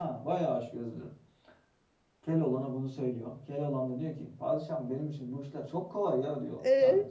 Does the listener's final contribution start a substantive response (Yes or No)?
No